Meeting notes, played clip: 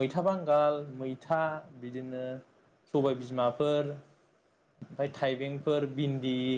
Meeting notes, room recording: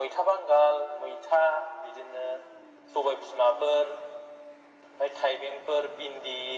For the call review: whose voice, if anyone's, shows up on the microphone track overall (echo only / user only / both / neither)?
echo only